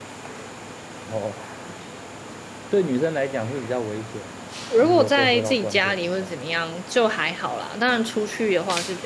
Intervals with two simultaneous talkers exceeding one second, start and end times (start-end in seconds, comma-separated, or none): 4.8-6.3